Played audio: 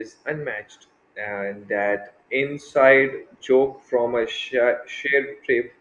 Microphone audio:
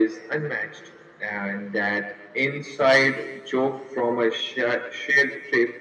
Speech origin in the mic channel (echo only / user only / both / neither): echo only